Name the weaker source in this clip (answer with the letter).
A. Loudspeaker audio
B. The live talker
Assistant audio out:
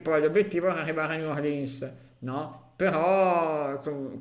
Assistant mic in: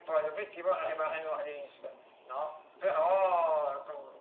B